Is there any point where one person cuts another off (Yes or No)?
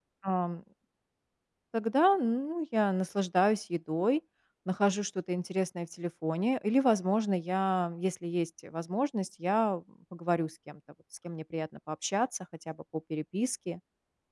No